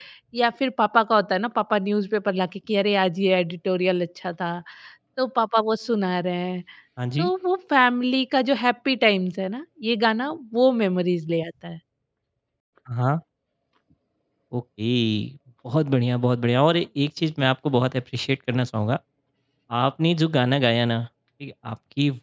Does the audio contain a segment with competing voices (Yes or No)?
No